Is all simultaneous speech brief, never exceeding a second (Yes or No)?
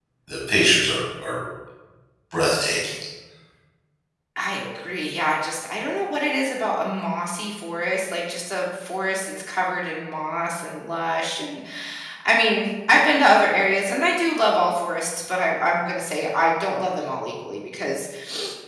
Yes